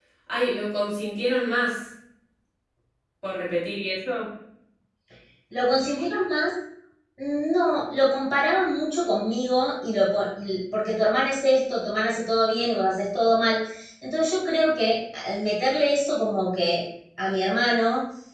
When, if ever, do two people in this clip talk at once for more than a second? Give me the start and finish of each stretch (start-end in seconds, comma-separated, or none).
none